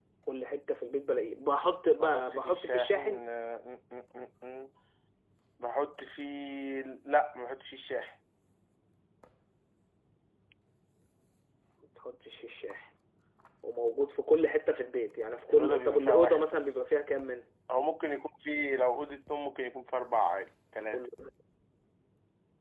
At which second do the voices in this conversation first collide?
2 s

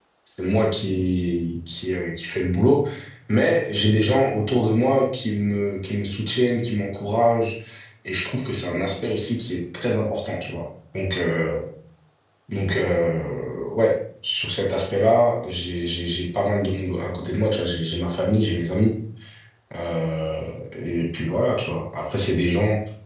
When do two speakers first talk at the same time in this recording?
none

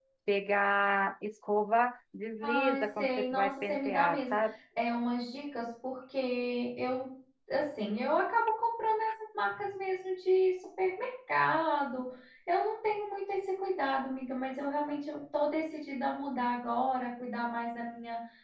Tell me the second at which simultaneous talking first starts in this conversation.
2 s

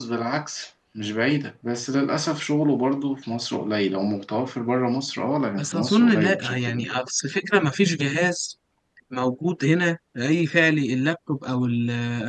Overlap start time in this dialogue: 6 s

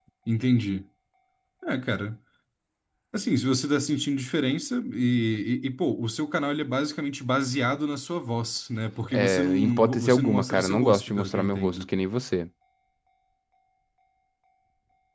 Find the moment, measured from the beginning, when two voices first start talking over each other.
9 s

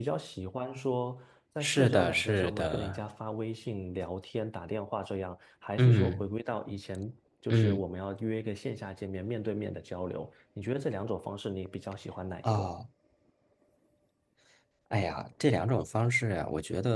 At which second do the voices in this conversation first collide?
2 s

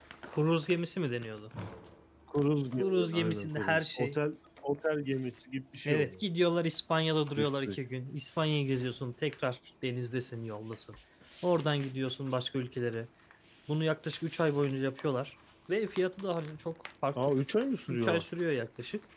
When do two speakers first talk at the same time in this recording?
3 s

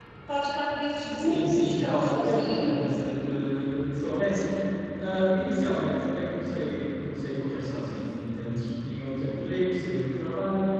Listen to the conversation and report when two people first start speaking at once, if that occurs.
1 s

